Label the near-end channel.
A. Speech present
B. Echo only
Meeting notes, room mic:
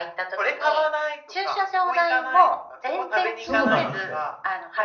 A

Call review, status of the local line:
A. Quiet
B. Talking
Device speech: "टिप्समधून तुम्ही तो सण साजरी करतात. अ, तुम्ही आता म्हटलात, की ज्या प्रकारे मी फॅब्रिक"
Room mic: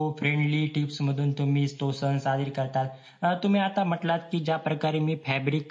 A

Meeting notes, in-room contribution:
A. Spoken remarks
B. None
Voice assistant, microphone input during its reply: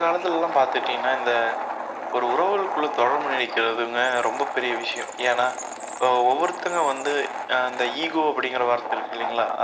B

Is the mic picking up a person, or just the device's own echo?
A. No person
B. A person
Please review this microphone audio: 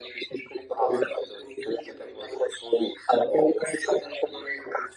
A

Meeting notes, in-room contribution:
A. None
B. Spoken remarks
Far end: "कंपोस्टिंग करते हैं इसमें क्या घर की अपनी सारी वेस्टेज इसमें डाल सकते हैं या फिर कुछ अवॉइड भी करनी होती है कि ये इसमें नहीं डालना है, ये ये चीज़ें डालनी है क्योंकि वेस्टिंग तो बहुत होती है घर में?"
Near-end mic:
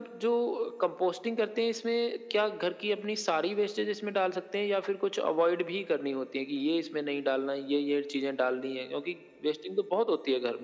A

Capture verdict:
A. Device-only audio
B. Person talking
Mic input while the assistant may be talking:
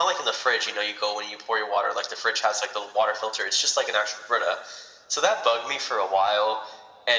A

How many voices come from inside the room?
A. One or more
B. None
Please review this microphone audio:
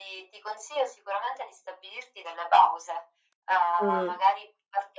A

